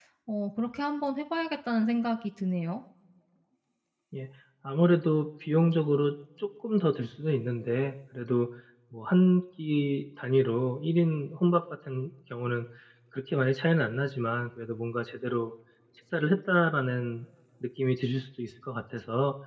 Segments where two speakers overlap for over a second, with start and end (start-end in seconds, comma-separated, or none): none